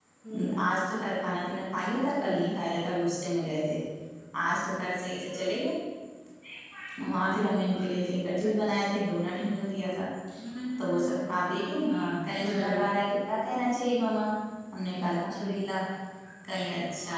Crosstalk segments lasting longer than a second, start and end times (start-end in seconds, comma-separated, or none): none